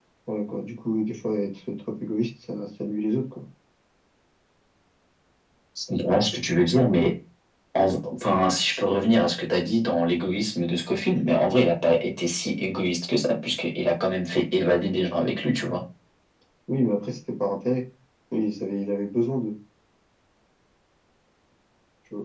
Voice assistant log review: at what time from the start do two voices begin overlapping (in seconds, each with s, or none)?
none